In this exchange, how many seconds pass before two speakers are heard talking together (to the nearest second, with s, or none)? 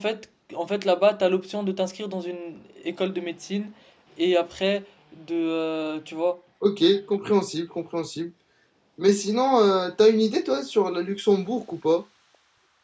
none